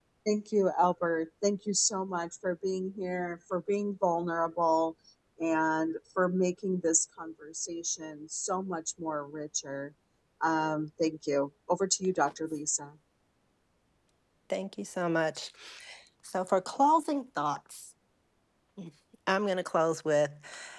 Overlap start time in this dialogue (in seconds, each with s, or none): none